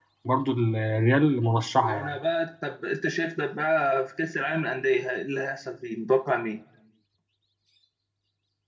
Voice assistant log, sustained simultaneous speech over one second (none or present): none